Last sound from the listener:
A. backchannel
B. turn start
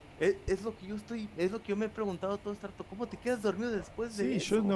B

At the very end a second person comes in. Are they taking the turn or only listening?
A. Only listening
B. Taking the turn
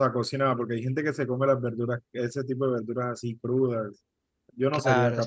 B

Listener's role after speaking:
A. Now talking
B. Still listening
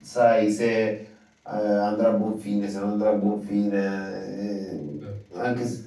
B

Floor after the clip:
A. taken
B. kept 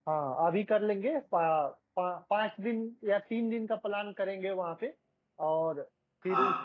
B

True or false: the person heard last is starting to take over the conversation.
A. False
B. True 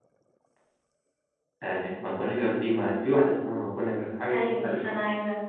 B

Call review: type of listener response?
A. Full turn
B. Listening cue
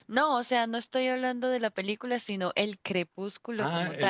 A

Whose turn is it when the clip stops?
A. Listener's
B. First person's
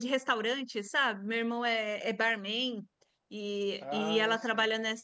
B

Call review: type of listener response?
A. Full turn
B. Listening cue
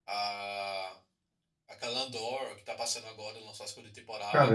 A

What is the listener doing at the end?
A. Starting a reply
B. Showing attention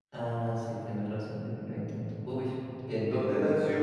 A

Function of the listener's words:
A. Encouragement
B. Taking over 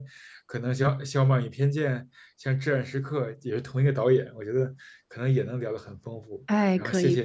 B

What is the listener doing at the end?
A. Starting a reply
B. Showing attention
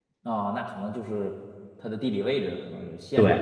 A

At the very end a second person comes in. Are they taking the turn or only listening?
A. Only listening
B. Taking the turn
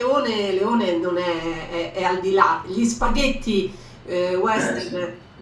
A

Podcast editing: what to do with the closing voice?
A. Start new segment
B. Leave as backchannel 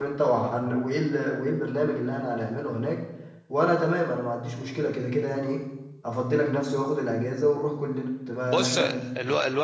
A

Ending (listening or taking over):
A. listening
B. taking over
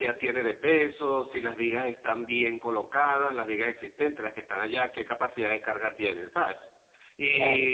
A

